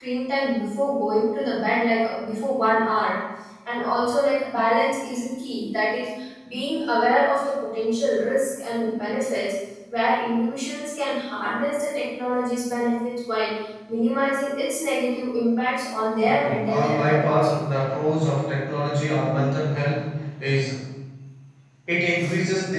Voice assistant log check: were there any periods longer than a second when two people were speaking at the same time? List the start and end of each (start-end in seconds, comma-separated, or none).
16.2-17.6